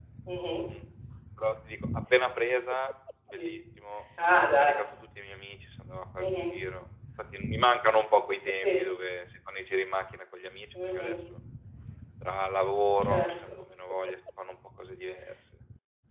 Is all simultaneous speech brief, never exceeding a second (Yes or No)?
Yes